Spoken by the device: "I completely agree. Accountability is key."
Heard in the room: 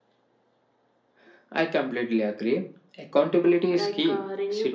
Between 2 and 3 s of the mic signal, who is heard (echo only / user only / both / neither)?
echo only